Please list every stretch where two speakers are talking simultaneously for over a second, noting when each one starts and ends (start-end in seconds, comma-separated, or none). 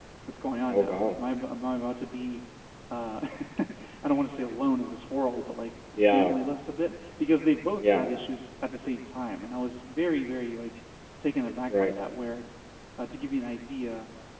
none